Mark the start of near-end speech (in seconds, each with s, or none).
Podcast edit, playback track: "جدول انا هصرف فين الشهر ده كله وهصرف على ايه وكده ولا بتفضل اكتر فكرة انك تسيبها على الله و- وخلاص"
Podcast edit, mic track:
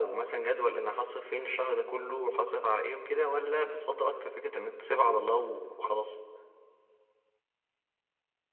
none